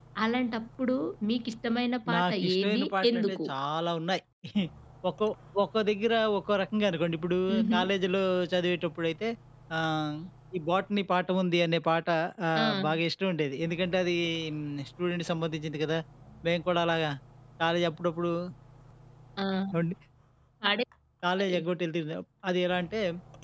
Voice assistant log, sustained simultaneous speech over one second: present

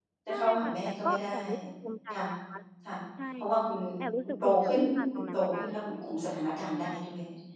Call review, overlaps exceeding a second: present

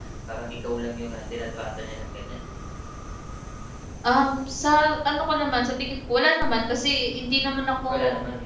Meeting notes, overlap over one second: none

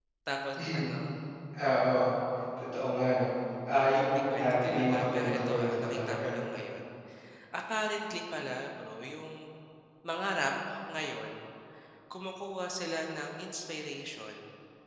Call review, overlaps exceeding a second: present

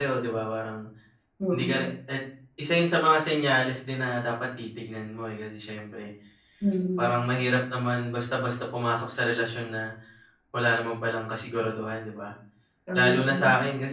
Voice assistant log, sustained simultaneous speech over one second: none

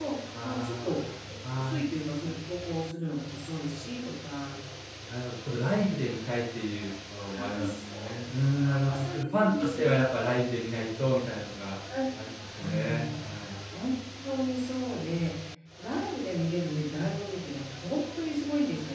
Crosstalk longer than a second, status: present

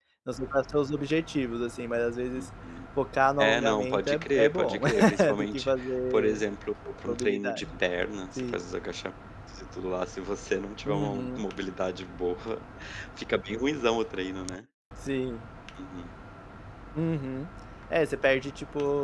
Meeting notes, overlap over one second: present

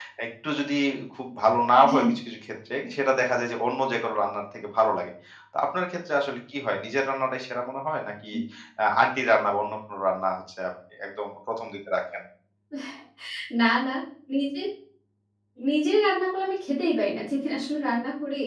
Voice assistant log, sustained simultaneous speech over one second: none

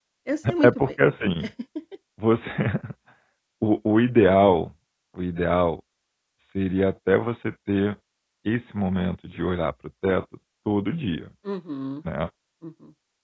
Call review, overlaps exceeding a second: none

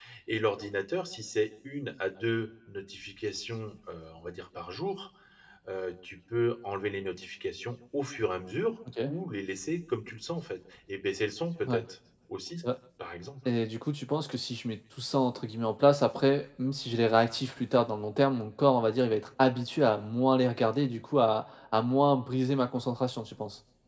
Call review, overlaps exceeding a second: none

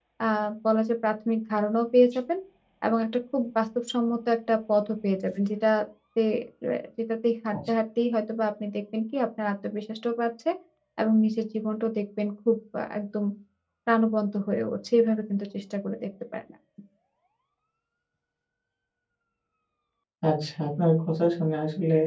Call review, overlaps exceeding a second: none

